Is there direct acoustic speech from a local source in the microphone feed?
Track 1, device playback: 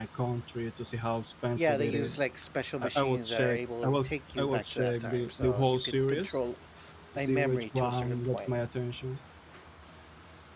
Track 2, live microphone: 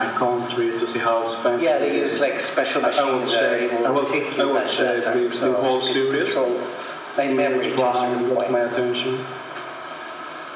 No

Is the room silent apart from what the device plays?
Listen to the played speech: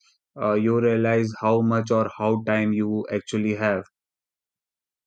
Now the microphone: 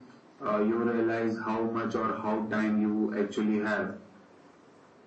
Yes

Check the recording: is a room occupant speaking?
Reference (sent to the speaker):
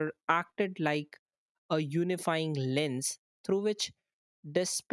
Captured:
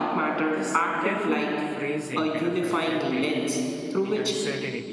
Yes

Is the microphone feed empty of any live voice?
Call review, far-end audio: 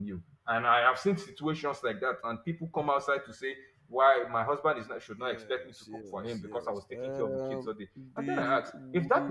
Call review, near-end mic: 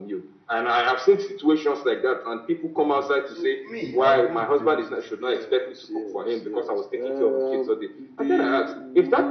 No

